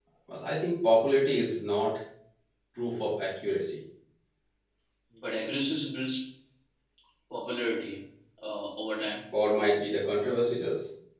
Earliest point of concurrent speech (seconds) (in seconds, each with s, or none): none